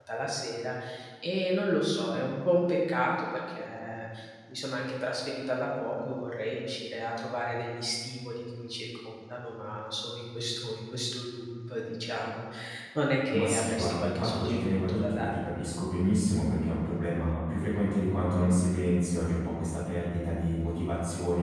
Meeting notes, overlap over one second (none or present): present